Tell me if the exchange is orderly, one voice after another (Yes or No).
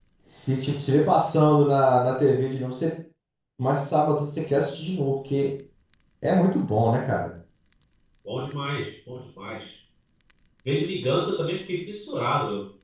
Yes